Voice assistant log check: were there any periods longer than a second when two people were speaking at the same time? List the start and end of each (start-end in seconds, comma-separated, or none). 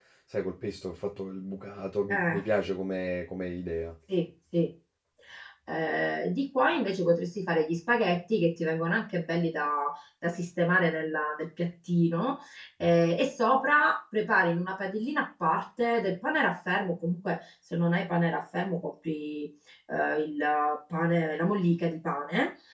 none